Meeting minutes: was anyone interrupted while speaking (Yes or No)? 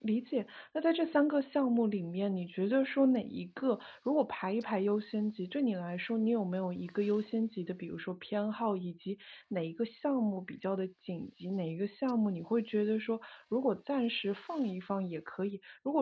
No